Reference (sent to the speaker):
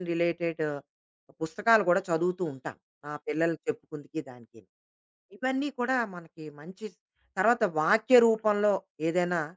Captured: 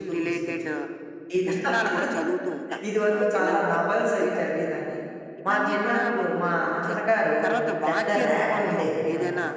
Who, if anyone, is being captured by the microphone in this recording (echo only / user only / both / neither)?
both